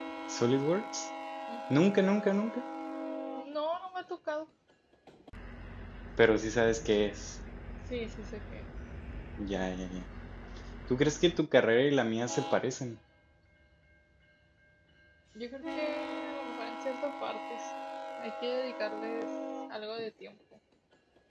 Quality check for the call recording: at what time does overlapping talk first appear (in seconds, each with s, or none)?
none